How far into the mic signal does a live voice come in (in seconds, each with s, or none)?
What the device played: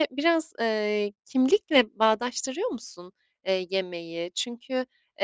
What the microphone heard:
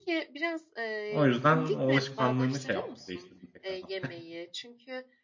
1.1 s